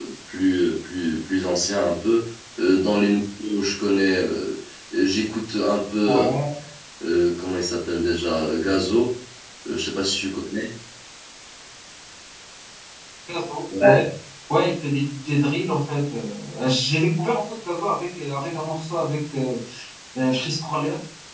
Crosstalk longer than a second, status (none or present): none